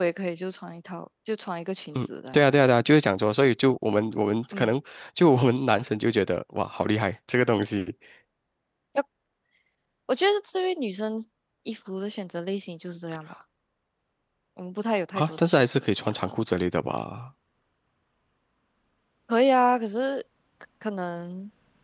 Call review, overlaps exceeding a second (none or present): present